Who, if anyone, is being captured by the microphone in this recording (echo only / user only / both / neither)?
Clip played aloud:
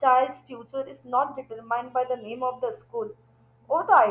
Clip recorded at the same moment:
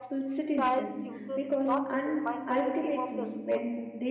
both